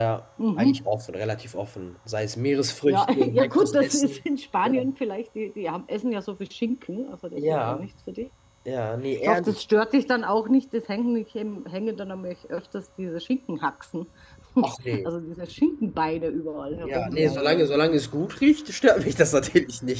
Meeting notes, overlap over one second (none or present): present